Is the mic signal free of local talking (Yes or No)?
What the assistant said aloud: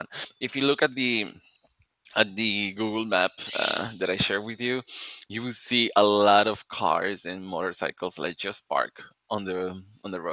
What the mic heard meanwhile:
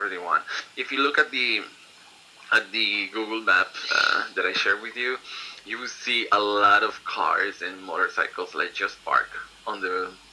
Yes